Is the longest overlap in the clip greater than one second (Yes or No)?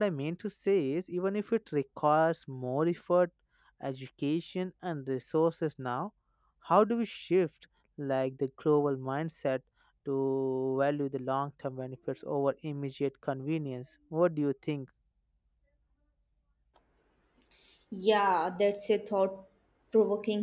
No